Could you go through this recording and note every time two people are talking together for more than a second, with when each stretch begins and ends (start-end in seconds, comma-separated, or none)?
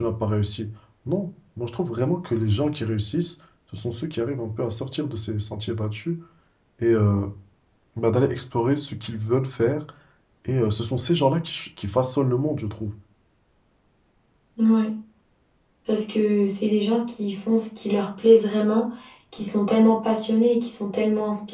none